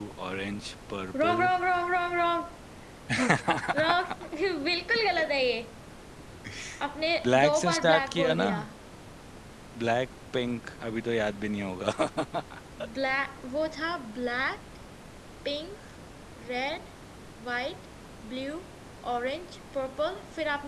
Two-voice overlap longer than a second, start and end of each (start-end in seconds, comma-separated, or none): 7.2-8.5